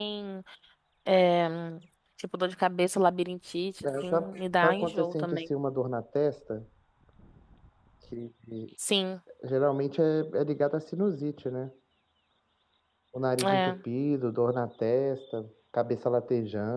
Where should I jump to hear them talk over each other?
3.9 s

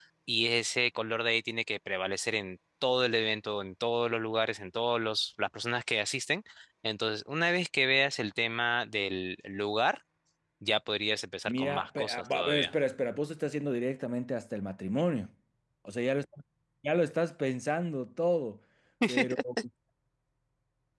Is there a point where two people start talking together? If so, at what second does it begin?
11.5 s

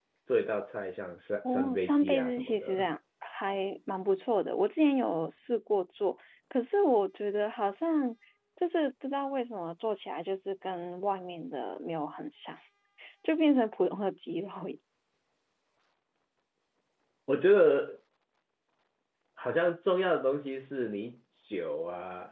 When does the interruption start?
1.4 s

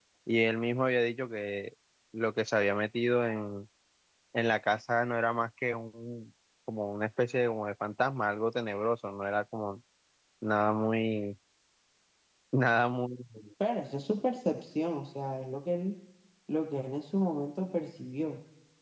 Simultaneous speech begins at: none

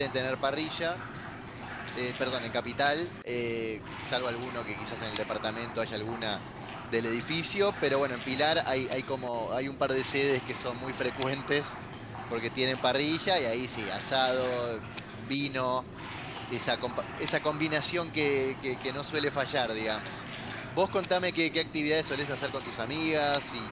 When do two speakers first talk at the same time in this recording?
none

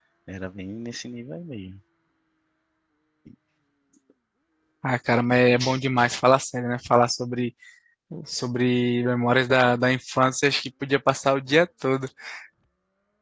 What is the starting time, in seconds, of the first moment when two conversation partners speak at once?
none

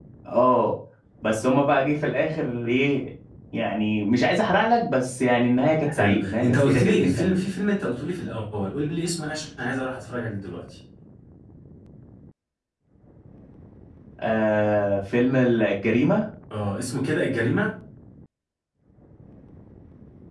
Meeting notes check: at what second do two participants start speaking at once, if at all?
5.8 s

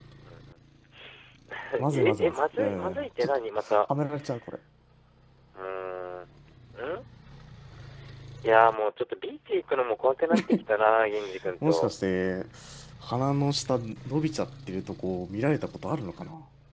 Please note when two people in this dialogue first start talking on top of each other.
1.9 s

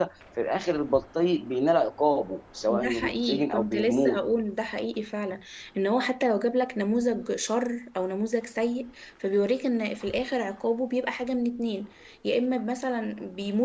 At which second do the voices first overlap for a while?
2.7 s

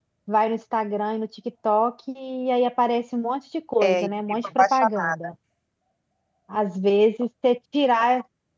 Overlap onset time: 3.8 s

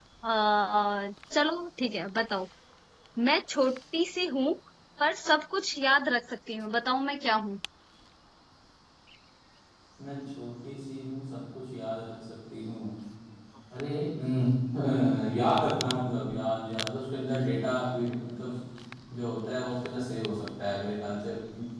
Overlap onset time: none

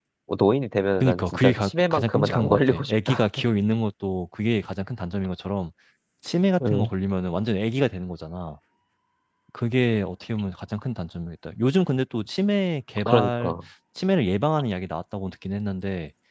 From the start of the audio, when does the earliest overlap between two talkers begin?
1.0 s

